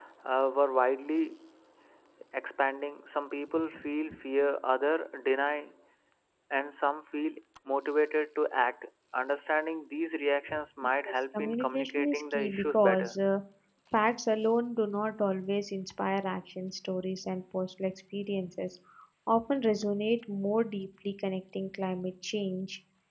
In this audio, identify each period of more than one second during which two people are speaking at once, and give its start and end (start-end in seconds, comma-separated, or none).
11.0-13.2